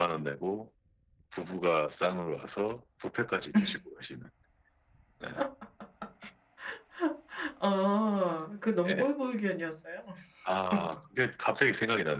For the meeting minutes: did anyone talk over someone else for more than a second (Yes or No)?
No